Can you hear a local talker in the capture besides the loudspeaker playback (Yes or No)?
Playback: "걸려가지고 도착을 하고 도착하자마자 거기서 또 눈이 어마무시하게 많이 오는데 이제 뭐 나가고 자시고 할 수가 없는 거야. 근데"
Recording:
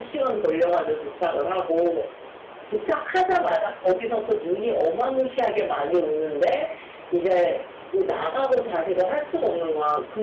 No